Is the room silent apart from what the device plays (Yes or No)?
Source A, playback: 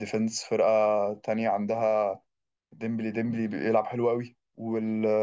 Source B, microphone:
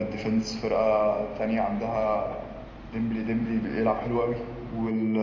Yes